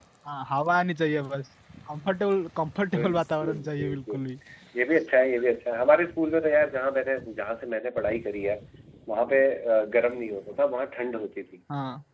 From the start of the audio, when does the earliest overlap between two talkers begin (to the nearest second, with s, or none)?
3 s